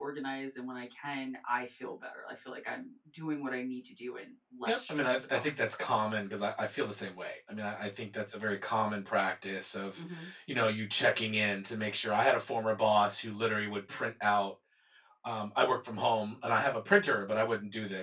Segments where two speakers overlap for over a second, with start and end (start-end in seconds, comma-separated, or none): 4.7-5.9